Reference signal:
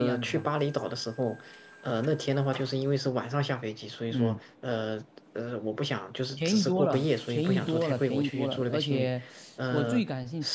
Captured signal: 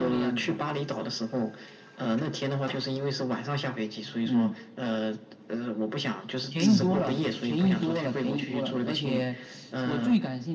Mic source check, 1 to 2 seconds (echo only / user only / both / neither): echo only